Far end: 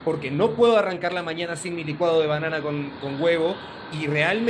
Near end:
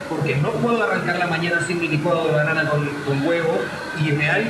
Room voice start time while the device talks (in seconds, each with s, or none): none